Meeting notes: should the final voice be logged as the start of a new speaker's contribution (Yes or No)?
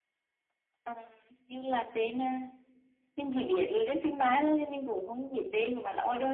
Yes